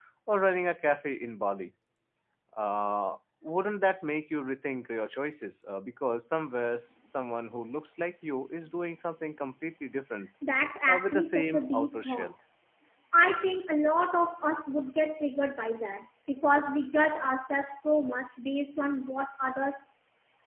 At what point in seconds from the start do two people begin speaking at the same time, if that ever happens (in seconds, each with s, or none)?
10.9 s